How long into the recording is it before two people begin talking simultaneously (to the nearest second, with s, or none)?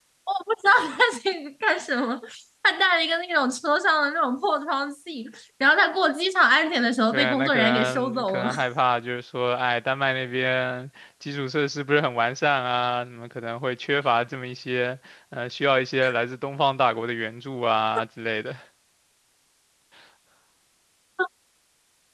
7 s